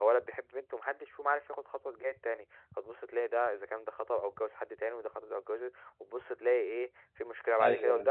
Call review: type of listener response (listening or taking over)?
listening